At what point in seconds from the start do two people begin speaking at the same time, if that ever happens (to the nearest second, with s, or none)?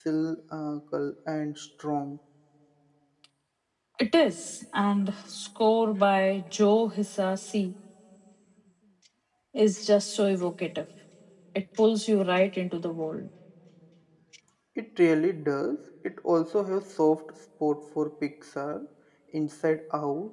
none